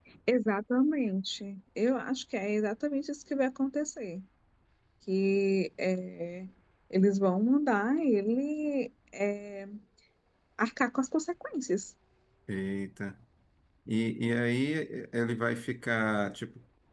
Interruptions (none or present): none